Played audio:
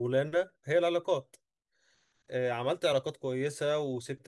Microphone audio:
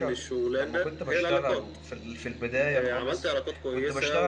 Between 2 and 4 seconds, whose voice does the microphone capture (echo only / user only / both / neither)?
both